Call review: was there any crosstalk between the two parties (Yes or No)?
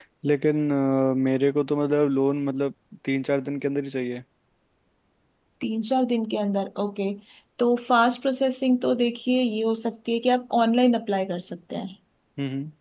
No